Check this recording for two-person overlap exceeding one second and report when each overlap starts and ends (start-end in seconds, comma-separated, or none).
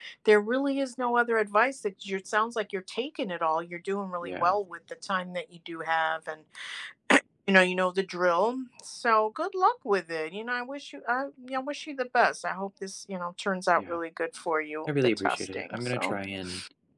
14.9-16.2